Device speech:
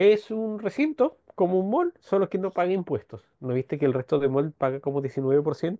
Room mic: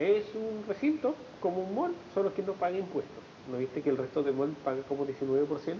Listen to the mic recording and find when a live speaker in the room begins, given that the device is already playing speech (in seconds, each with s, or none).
none